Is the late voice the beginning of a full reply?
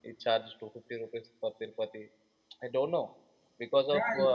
Yes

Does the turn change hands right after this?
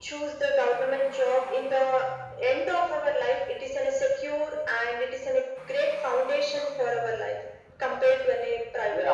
Yes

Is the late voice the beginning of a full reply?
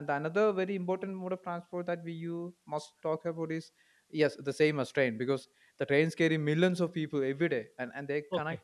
No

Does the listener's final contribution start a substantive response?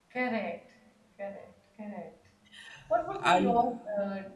No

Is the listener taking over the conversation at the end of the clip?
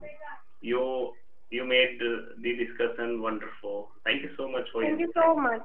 Yes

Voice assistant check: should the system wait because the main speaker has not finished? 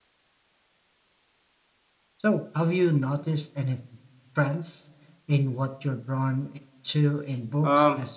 No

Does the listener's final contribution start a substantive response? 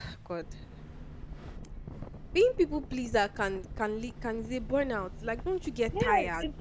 Yes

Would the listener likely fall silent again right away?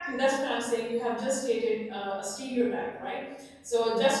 Yes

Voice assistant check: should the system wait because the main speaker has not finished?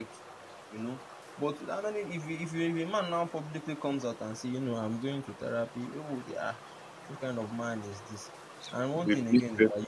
Yes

